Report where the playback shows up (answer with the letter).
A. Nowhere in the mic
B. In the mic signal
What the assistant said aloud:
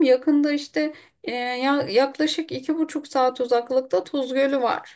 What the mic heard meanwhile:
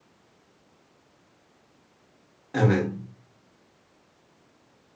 A